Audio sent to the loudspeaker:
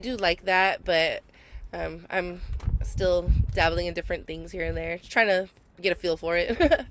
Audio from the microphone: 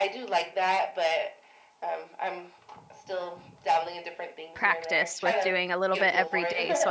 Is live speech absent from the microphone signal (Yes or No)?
No